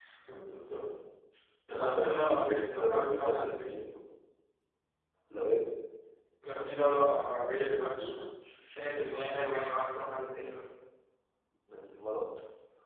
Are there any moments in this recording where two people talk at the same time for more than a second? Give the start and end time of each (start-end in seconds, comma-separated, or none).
1.8-3.8